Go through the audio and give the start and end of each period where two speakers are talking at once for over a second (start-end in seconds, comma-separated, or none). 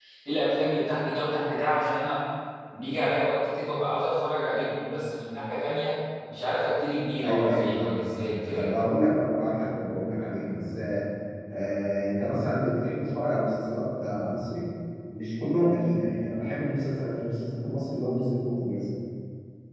7.2-8.7